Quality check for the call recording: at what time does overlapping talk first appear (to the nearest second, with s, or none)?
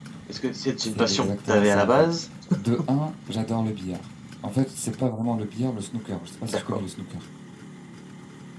1 s